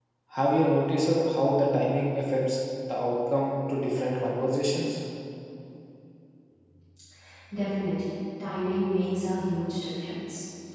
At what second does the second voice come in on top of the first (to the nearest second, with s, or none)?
none